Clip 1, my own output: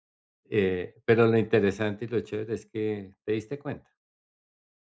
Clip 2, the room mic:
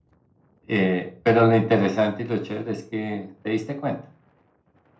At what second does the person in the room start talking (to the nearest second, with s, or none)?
none